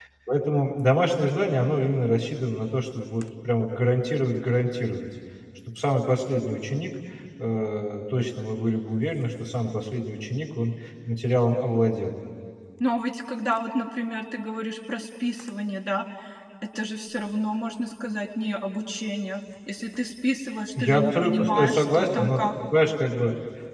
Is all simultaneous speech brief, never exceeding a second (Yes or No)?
No